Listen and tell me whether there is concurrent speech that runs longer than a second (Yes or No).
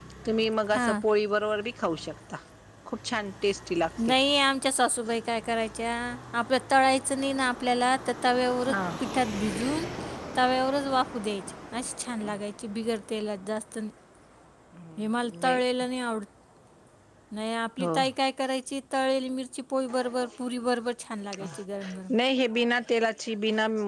No